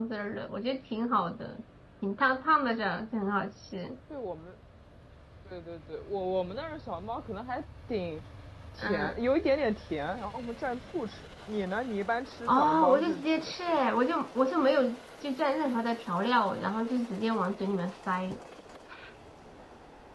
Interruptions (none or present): present